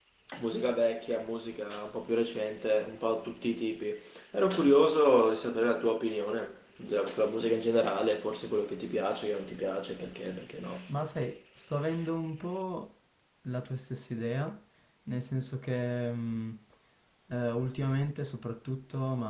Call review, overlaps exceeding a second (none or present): none